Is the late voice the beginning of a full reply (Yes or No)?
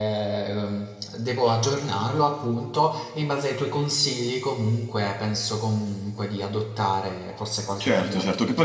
Yes